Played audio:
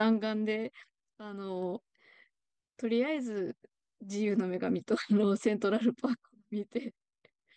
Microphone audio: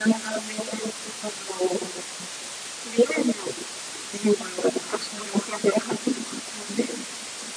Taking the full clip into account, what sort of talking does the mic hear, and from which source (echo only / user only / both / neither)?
echo only